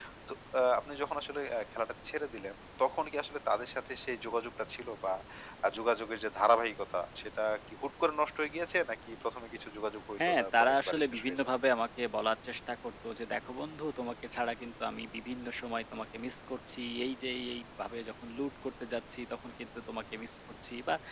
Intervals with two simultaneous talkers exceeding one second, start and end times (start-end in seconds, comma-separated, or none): 10.3-11.5